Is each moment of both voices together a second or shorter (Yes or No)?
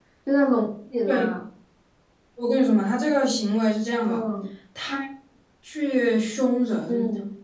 Yes